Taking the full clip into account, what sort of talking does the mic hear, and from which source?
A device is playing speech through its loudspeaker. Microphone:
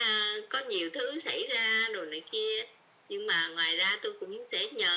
echo only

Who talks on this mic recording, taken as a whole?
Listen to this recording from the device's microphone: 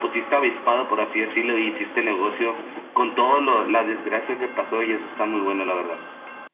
echo only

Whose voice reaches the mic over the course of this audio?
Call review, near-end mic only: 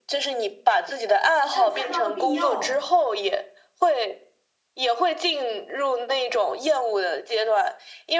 both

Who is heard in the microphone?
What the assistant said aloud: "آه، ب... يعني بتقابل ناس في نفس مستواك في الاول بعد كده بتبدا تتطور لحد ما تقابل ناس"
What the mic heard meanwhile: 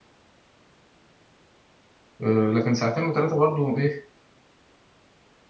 user only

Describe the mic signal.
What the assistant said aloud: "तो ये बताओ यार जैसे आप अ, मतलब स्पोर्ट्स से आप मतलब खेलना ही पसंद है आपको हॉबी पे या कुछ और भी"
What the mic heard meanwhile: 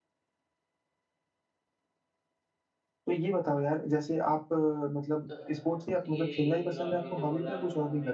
both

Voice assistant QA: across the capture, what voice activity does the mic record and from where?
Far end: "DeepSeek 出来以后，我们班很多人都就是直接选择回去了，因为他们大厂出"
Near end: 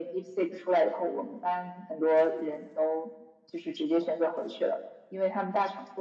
echo only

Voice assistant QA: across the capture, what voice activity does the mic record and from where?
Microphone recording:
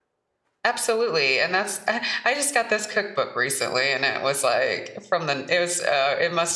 user only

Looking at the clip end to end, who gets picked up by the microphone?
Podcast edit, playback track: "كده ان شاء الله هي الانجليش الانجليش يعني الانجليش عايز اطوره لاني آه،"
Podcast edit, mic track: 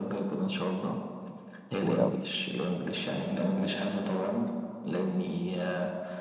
both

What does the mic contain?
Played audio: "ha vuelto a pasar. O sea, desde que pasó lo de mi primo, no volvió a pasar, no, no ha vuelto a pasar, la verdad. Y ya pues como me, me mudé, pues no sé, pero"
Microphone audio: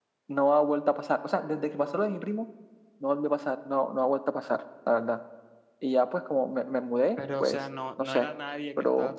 both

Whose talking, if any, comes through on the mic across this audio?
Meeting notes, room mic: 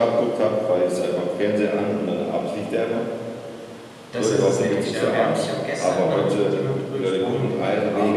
both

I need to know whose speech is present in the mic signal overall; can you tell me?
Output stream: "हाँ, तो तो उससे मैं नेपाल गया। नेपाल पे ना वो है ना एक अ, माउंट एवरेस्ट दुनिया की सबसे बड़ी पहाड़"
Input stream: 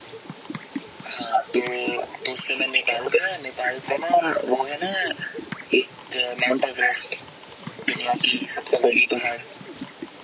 echo only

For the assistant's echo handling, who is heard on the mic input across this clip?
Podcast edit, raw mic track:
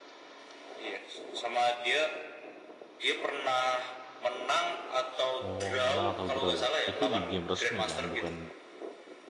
both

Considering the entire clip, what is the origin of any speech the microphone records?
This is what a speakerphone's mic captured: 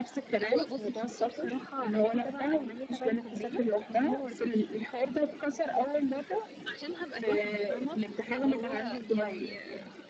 echo only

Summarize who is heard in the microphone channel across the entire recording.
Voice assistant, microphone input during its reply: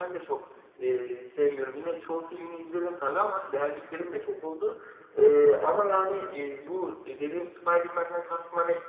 user only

